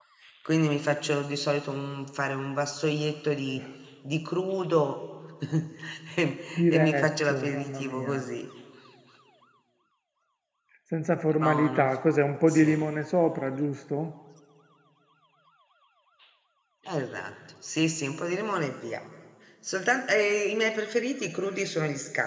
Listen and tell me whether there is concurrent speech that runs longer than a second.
Yes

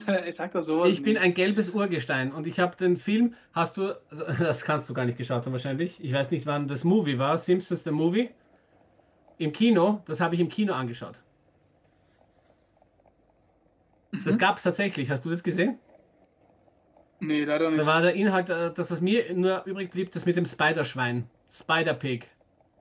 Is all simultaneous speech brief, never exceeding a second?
Yes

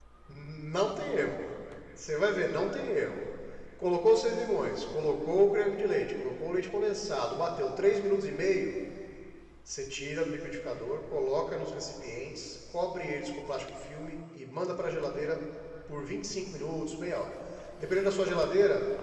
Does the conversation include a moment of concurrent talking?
No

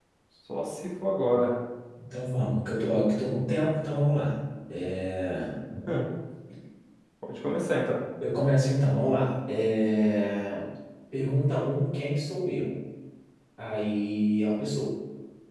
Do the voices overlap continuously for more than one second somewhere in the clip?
No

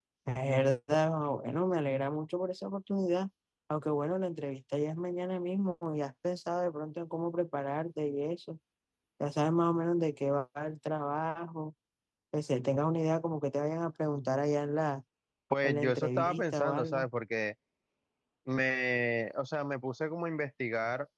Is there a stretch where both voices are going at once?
Yes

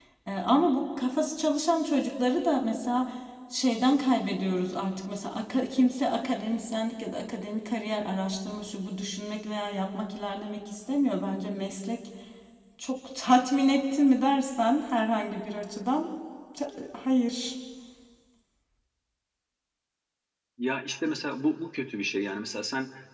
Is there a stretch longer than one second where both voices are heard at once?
No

